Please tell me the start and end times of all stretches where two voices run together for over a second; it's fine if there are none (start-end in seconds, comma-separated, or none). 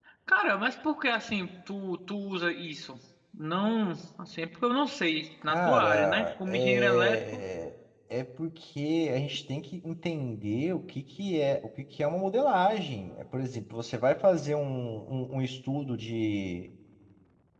5.5-7.4